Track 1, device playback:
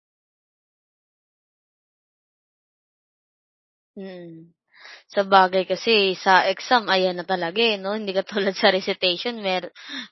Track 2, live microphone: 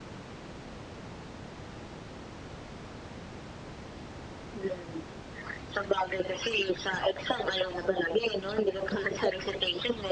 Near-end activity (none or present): none